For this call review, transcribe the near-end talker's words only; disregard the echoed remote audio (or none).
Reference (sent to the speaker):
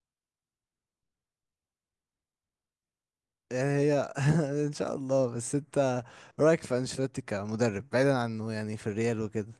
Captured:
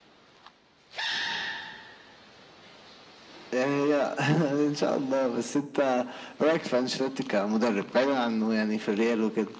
none